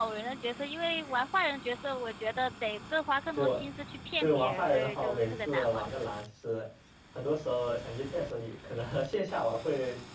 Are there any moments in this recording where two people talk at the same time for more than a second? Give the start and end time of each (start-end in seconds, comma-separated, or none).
4.2-5.9